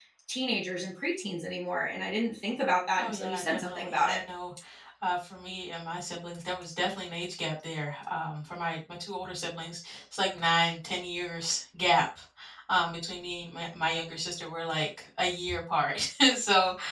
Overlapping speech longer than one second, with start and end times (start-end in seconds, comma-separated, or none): 3.0-4.2